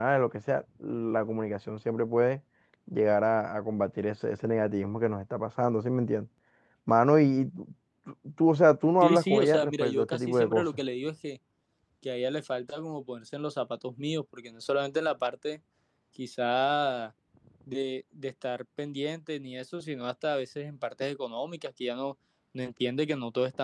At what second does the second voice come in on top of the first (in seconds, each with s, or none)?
9.0 s